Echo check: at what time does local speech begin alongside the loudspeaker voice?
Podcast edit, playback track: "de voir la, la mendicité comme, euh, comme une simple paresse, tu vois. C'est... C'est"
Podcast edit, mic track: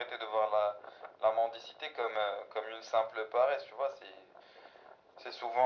none

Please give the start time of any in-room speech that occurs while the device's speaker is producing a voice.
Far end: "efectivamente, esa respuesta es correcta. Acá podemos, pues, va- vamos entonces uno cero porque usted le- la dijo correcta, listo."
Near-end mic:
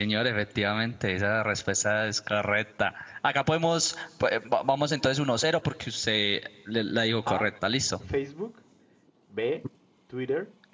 7.2 s

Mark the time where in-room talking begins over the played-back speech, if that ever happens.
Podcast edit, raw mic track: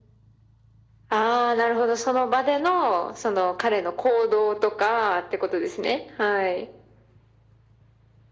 none

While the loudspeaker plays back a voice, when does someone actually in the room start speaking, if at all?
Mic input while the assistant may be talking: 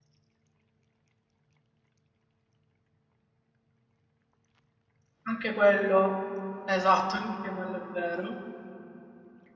5.2 s

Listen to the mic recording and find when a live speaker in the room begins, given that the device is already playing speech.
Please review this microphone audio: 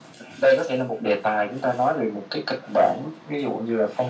none

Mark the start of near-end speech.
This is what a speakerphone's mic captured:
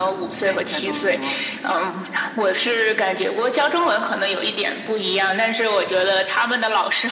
0.4 s

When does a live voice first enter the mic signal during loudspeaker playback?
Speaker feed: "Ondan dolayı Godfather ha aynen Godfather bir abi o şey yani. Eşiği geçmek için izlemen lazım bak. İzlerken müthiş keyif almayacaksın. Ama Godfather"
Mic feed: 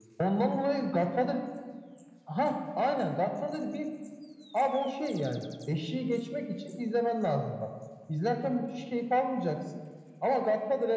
none

